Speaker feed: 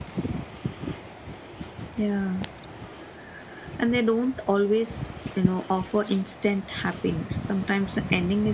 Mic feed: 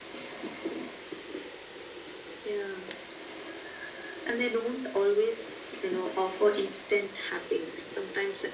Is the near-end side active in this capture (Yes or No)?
No